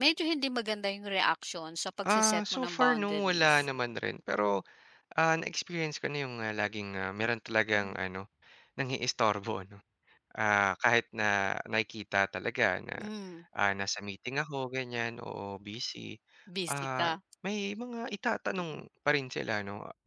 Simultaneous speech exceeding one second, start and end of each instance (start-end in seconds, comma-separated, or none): 2.1-3.6